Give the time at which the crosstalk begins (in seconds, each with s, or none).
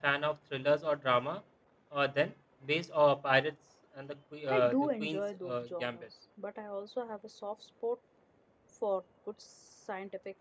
4.5 s